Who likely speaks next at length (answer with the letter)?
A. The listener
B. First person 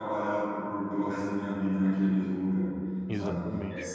B